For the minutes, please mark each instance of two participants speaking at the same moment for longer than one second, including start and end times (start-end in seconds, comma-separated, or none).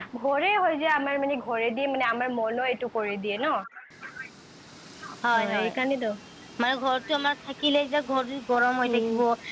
none